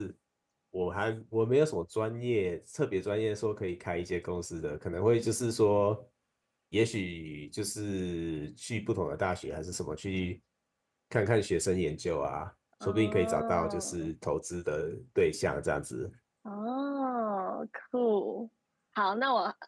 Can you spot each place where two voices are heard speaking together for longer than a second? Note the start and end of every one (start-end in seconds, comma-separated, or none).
12.8-14.1